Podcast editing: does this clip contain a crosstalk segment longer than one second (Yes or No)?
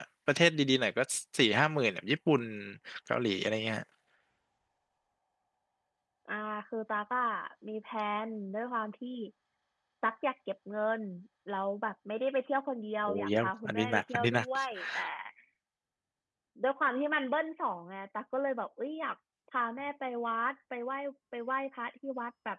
Yes